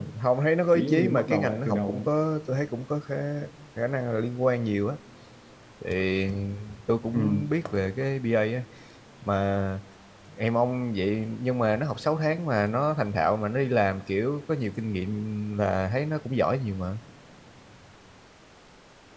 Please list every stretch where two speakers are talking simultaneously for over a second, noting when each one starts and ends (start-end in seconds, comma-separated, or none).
0.7-2.1